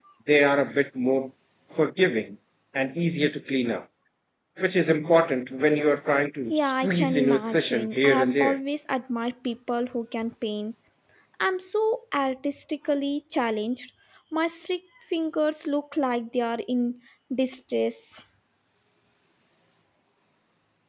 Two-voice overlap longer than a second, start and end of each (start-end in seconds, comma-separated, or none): 6.5-8.6